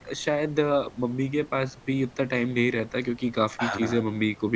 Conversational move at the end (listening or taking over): listening